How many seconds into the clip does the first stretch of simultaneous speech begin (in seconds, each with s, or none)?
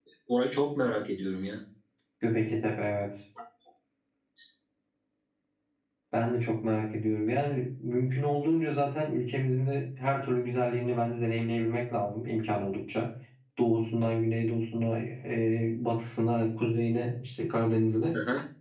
none